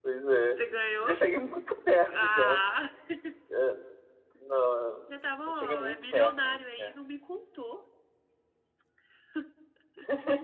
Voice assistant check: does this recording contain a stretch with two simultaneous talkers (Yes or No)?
Yes